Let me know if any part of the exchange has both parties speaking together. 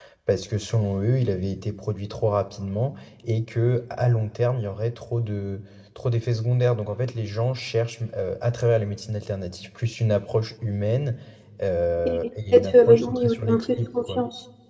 Yes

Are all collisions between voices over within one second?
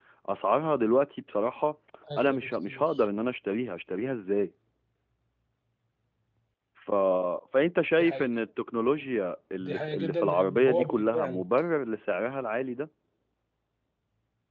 No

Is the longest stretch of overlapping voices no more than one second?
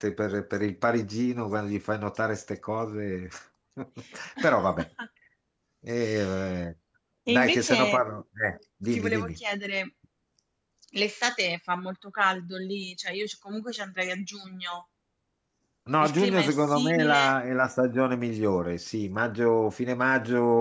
No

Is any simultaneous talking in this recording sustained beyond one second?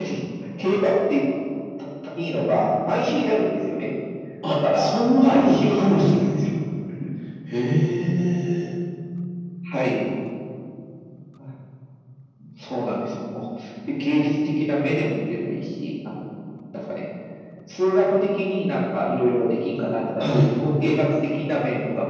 Yes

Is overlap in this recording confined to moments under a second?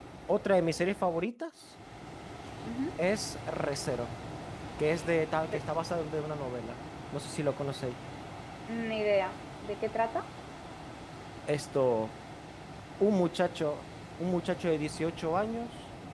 Yes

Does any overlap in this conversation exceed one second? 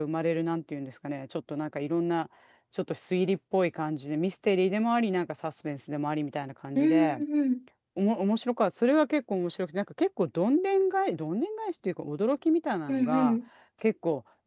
No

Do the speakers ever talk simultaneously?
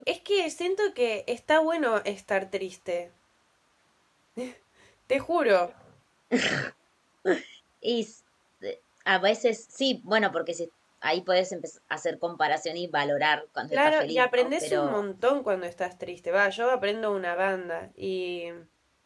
Yes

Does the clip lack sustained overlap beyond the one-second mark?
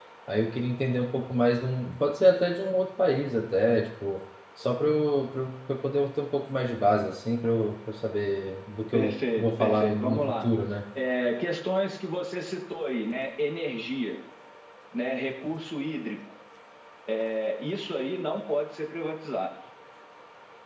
No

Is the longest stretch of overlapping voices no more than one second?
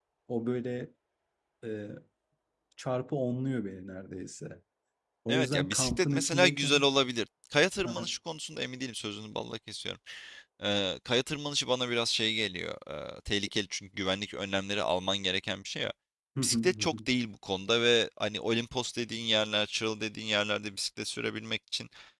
No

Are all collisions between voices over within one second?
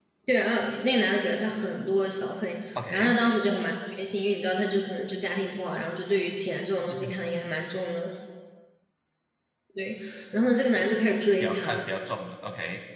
Yes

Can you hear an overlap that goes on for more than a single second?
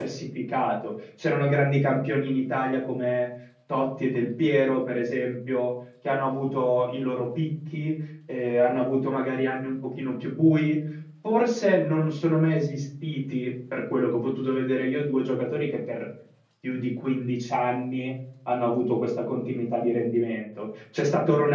No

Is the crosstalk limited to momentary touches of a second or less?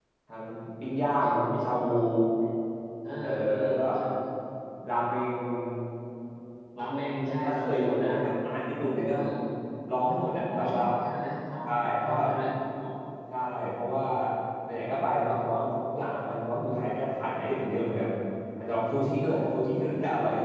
No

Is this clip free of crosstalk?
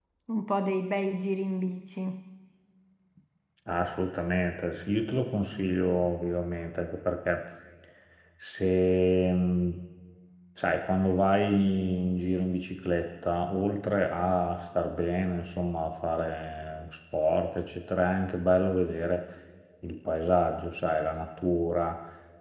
Yes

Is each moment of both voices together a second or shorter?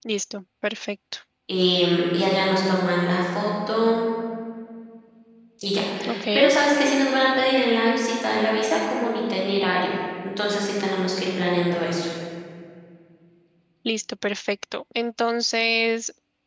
Yes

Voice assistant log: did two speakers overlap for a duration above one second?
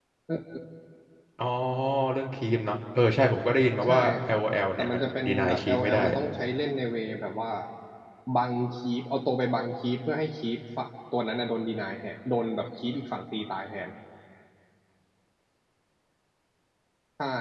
Yes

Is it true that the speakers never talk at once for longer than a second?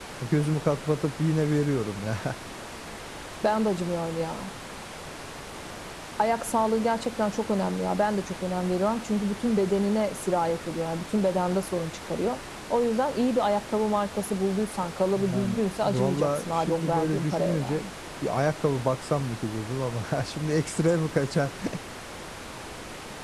No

